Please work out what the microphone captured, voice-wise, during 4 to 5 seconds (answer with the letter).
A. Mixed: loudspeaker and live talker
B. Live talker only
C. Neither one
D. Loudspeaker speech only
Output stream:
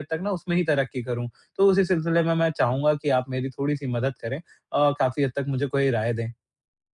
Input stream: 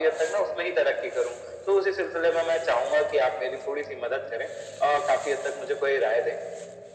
D